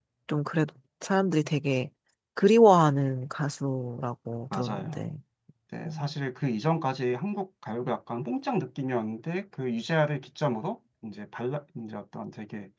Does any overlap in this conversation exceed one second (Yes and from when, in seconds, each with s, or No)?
No